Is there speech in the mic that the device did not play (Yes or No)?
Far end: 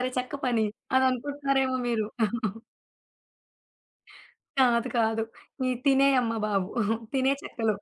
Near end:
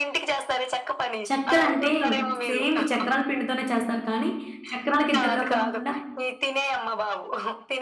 Yes